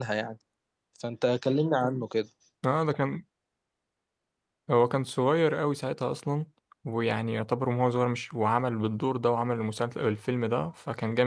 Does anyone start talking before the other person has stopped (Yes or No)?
No